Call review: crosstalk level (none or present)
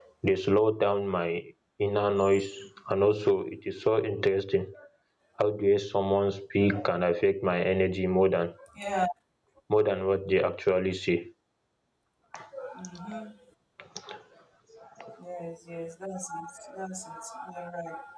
none